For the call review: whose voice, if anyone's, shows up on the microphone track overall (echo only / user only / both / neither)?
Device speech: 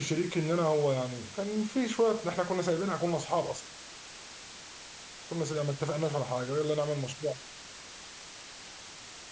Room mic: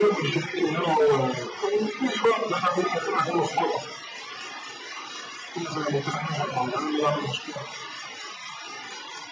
echo only